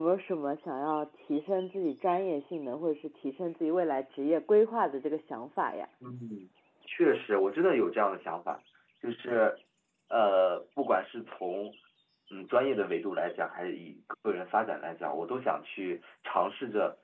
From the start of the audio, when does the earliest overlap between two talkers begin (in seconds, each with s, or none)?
none